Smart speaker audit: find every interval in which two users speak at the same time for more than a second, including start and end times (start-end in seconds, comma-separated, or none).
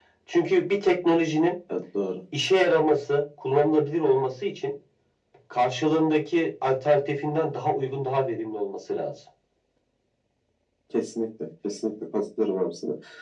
none